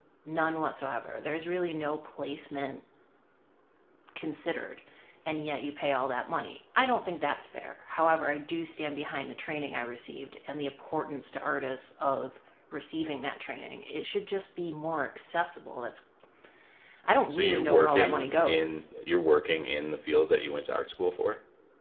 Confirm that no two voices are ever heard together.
No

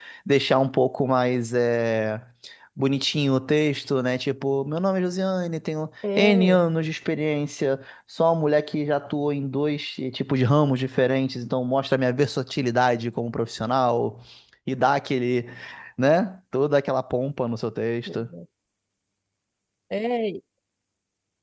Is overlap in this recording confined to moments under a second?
Yes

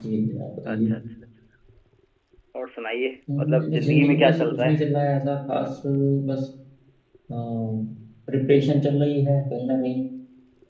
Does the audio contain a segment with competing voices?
Yes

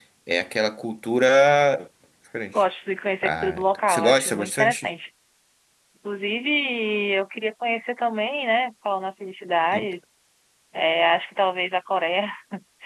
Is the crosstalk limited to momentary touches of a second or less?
No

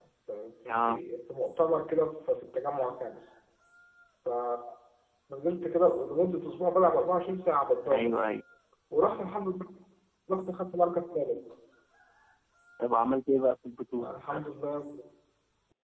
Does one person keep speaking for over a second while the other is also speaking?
No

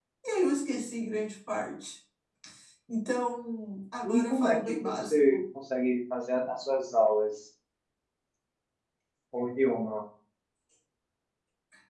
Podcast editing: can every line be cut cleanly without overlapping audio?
No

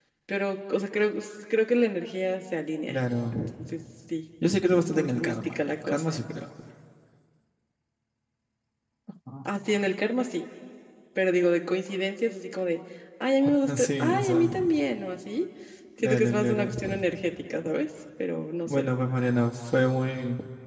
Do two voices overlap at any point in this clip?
Yes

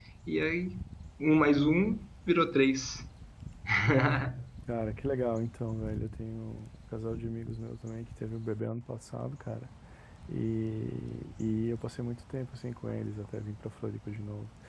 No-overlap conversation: Yes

